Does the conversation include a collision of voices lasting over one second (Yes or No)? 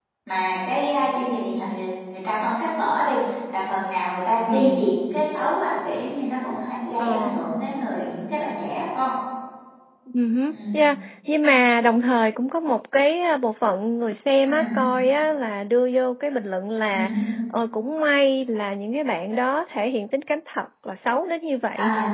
No